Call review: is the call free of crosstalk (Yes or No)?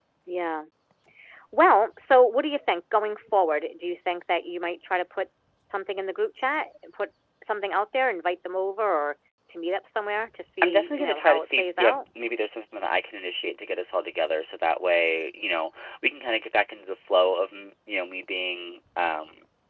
No